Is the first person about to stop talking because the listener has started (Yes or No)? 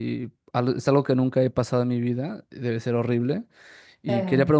No